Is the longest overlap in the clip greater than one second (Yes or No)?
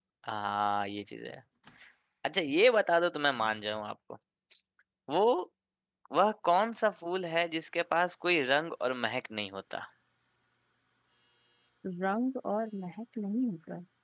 No